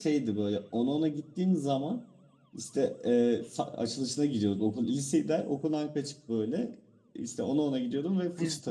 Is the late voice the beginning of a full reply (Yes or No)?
No